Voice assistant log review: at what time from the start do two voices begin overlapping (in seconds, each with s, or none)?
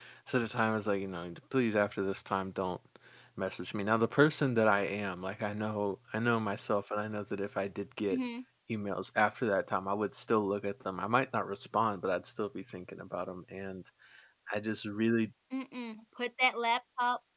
none